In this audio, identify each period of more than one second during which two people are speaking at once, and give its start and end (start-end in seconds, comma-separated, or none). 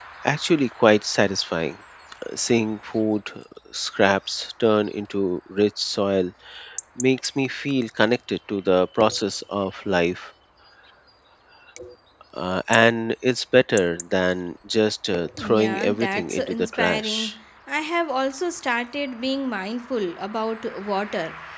15.4-17.4